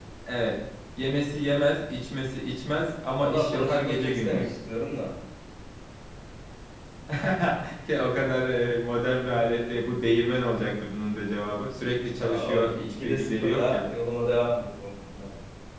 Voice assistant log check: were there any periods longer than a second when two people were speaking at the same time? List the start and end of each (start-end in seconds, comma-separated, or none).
3.2-4.4, 12.2-13.8